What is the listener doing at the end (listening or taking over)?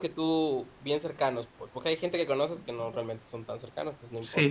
taking over